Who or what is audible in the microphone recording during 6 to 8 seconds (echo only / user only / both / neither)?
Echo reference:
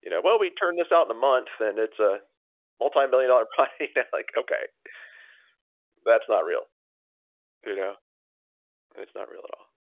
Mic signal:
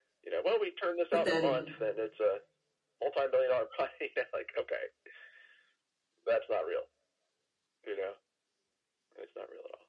echo only